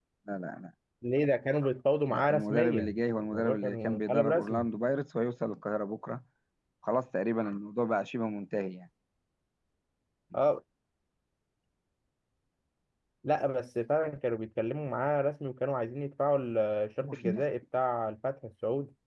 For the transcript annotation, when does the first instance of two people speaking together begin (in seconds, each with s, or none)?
2.1 s